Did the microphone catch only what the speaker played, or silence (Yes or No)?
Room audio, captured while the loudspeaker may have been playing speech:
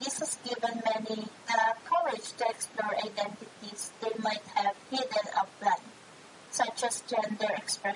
Yes